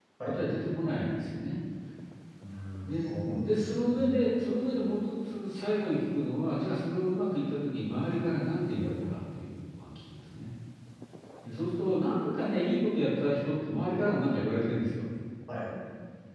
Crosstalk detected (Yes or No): Yes